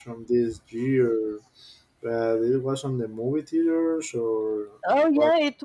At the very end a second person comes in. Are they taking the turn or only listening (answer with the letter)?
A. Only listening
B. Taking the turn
B